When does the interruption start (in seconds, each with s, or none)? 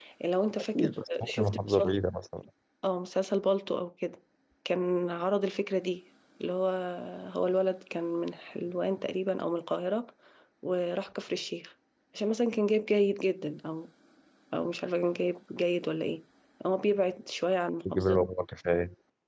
0.7 s